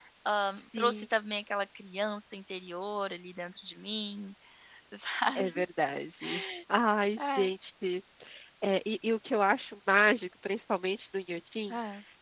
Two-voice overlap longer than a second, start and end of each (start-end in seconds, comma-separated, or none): none